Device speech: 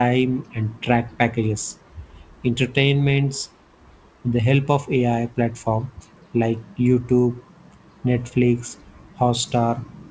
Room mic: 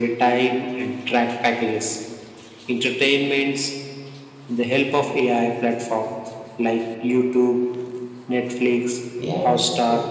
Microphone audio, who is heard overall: both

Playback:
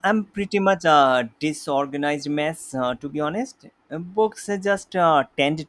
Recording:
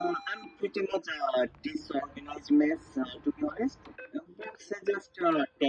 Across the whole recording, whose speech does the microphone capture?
echo only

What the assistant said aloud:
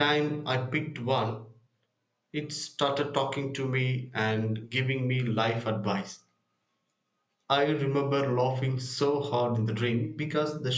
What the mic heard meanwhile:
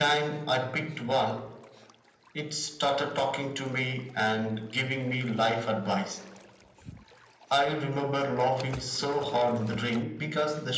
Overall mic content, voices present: echo only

